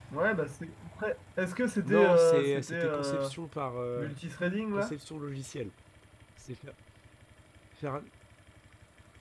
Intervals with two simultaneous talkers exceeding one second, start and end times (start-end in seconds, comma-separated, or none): 1.8-3.3